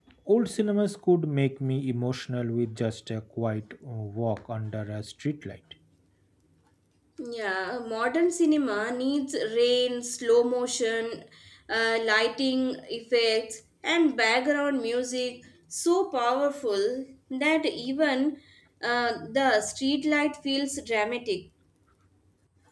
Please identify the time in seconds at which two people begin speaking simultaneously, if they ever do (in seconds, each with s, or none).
none